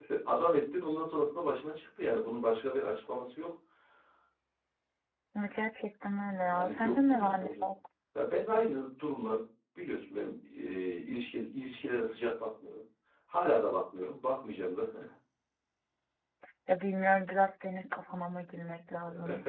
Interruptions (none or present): present